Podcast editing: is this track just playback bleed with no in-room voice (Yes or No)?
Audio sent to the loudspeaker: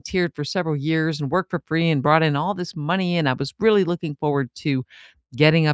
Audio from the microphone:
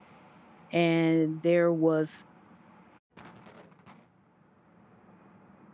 No